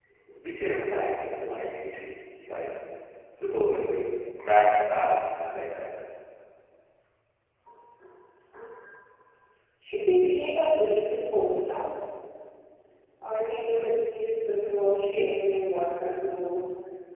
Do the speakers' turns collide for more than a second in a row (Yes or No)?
No